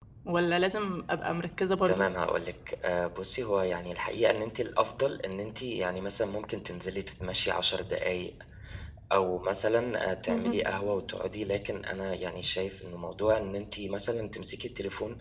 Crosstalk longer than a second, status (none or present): none